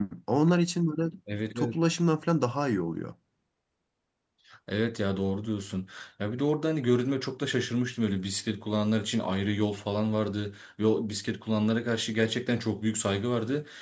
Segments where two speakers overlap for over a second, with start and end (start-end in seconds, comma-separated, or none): none